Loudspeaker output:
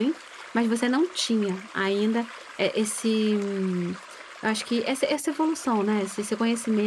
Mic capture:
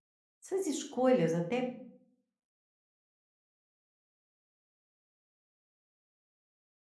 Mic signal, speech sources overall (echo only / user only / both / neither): user only